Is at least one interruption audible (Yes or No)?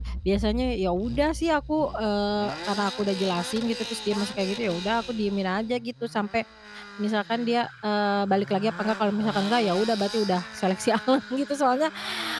No